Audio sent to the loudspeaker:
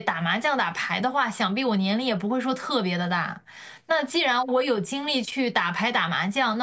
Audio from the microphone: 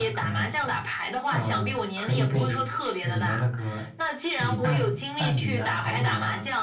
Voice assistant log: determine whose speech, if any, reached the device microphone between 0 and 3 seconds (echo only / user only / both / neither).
both